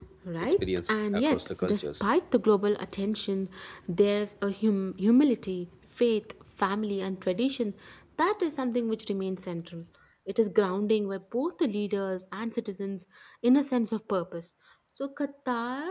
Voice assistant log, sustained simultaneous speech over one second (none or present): present